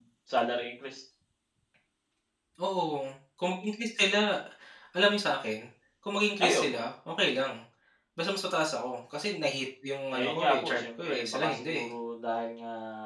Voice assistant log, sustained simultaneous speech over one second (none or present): present